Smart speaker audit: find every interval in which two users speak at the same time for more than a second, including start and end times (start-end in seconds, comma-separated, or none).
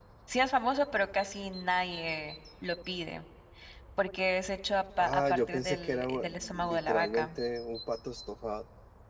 5.0-7.3